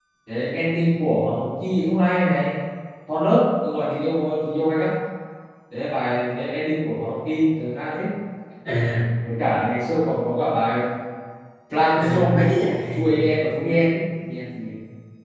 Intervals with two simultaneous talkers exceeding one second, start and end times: 11.9-13.3

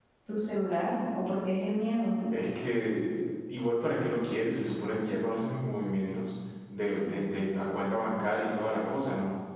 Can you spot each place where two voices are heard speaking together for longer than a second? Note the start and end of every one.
none

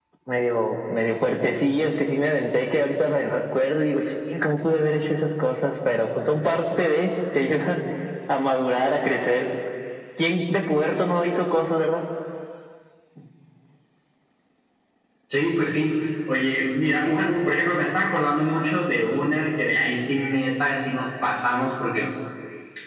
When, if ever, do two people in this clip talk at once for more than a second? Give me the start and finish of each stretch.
none

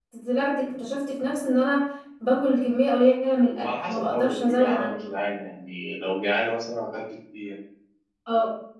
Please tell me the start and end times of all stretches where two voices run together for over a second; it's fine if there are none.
3.6-4.9

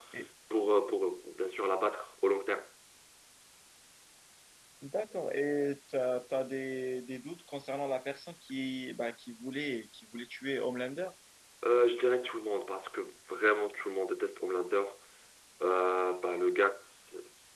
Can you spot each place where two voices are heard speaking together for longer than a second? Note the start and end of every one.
none

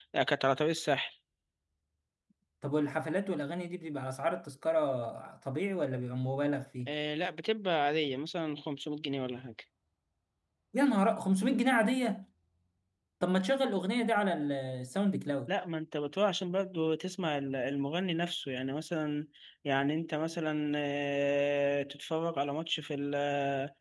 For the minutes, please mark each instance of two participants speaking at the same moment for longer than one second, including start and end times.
none

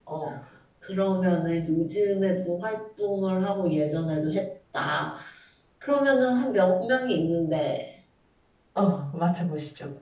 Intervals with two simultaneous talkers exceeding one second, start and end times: none

